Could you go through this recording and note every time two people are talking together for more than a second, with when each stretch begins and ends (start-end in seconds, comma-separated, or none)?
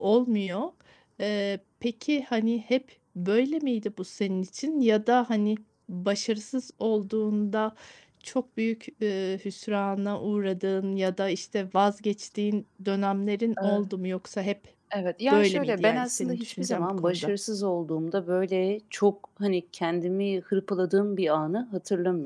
15.3-17.3